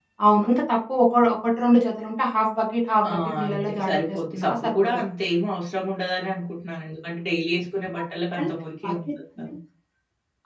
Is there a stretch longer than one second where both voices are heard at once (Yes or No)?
Yes